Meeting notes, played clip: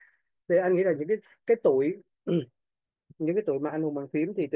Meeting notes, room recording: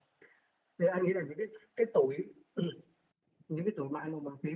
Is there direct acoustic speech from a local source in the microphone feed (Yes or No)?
No